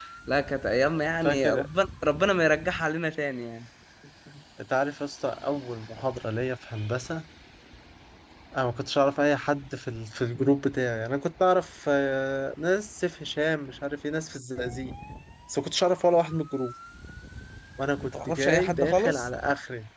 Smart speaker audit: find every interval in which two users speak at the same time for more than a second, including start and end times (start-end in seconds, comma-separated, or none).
18.0-19.3